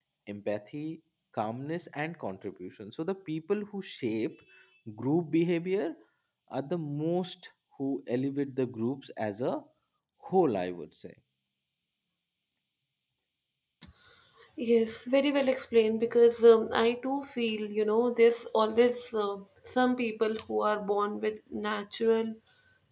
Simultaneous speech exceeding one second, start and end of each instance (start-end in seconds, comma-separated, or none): none